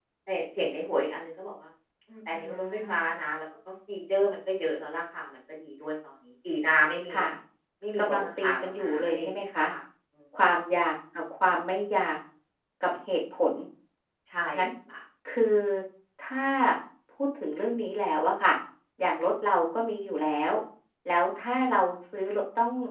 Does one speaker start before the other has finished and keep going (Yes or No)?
Yes